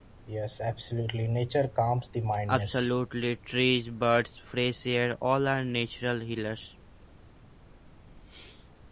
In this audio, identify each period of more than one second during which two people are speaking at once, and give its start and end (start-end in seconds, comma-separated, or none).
none